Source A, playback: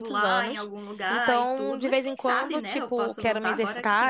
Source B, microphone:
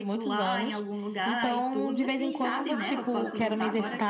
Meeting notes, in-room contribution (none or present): present